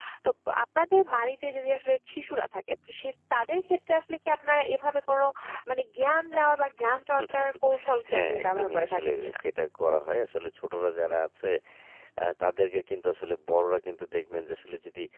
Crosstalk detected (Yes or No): Yes